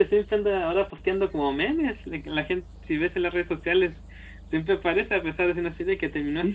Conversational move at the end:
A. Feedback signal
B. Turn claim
B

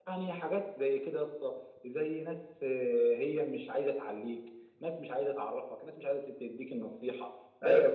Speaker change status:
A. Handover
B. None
A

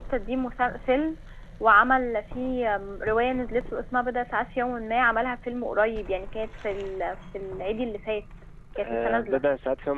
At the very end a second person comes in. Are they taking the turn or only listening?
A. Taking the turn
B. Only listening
A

